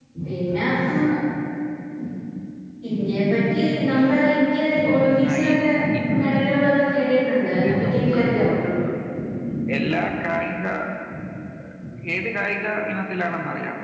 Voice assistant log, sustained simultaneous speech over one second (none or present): present